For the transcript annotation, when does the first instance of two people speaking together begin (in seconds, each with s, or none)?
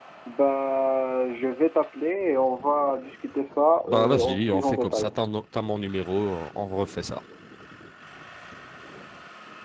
3.9 s